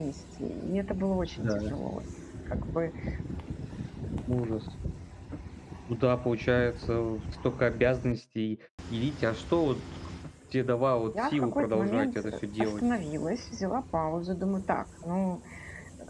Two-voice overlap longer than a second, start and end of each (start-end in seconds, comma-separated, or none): 11.1-12.8